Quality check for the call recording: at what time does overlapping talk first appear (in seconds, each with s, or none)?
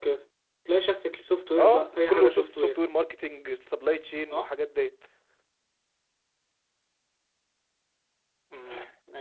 1.6 s